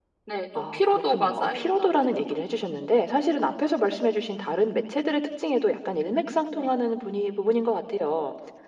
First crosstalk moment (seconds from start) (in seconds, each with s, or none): 0.6 s